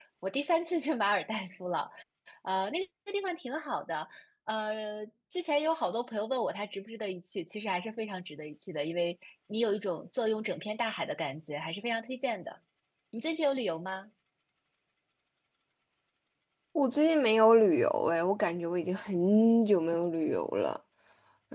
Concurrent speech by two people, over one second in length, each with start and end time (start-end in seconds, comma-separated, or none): none